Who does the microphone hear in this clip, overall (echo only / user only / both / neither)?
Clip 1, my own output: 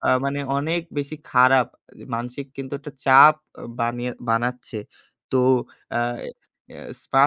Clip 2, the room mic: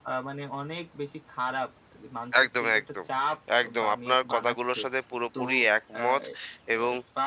both